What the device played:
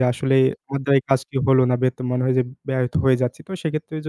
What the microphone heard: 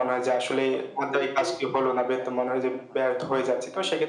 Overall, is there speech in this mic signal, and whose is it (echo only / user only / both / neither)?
both